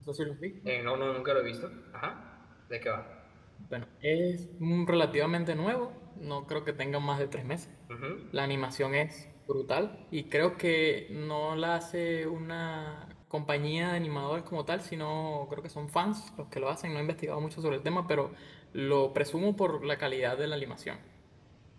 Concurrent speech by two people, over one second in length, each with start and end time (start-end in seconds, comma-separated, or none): none